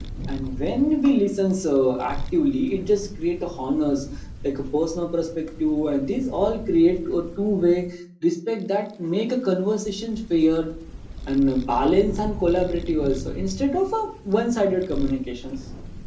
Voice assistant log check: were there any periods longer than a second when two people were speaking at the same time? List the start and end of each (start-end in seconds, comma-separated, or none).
none